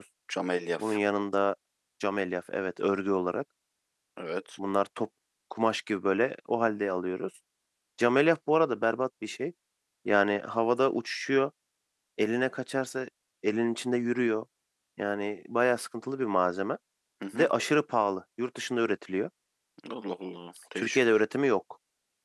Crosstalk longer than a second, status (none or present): none